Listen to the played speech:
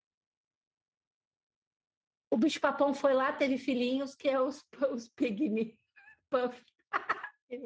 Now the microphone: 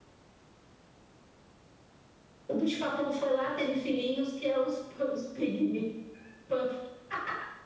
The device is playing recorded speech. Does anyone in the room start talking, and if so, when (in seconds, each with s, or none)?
none